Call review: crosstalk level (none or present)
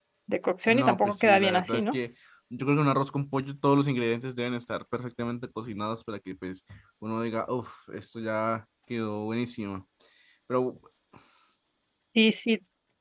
present